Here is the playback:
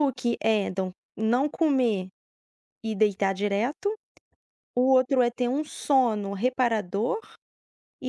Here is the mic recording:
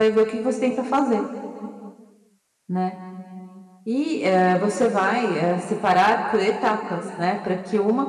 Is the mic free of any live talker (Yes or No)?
No